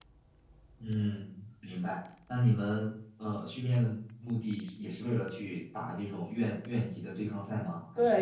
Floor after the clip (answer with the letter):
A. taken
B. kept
A